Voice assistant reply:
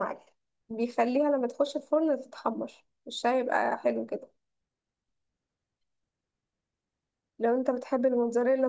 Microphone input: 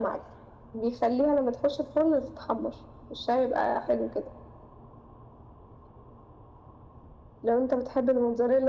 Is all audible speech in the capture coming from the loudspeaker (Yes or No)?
Yes